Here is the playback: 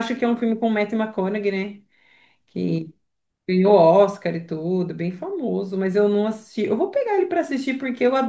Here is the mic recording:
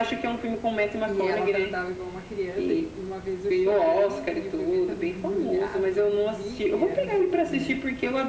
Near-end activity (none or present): present